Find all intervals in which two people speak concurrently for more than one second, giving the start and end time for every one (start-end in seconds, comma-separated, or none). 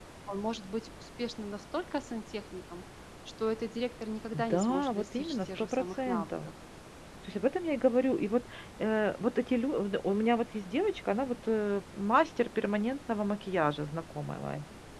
4.3-6.5